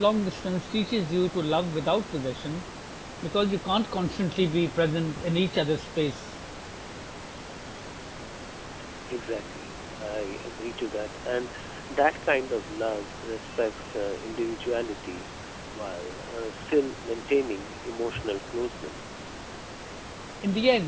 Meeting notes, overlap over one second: none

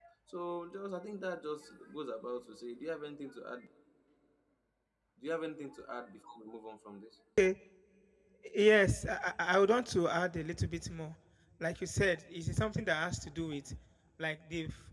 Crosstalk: none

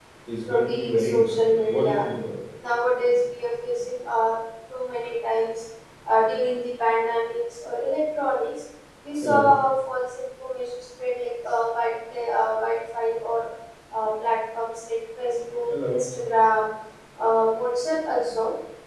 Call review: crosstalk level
present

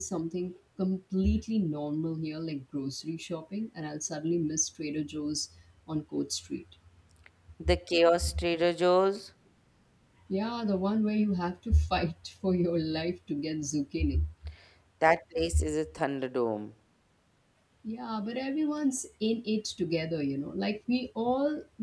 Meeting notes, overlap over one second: none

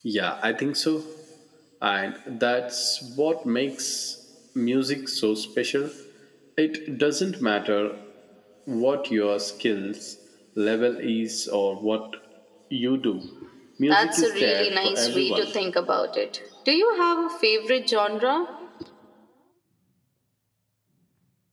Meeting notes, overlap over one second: present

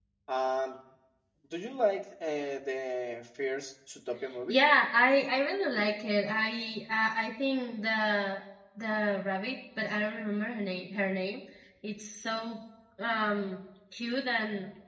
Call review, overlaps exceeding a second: none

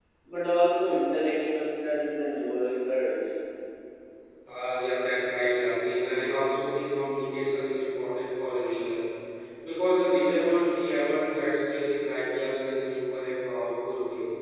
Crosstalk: none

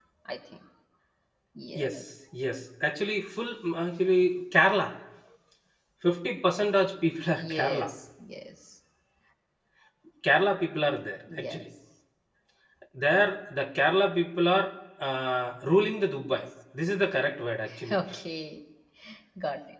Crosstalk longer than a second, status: none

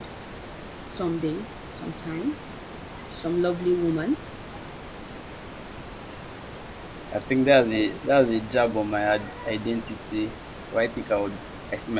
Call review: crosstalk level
none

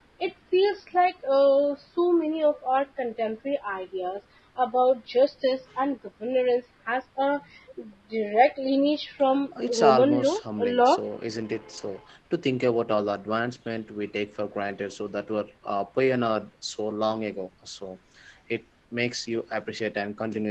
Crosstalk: present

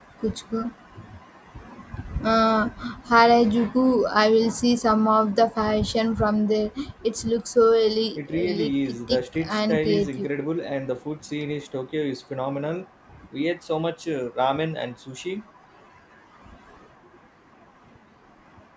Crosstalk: present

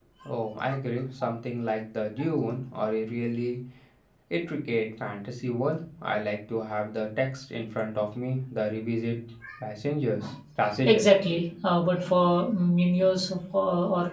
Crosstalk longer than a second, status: none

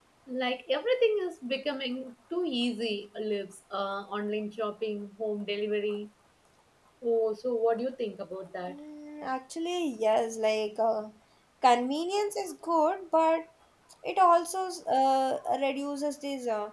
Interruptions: none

